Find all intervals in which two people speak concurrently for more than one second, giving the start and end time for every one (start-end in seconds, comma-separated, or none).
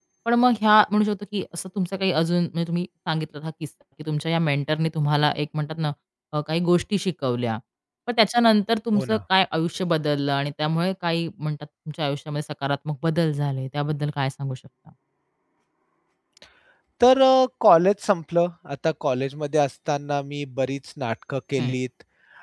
none